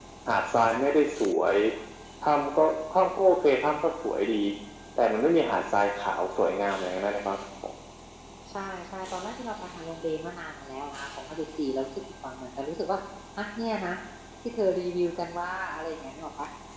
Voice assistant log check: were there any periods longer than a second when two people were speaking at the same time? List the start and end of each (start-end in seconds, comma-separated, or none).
none